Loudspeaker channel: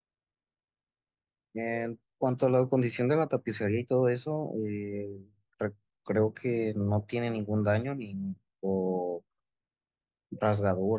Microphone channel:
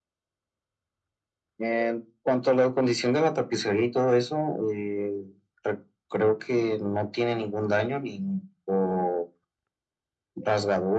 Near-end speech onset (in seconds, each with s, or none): none